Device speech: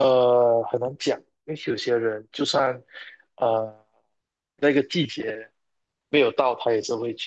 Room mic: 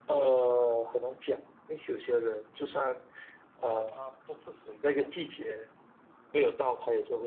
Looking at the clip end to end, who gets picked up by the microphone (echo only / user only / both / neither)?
both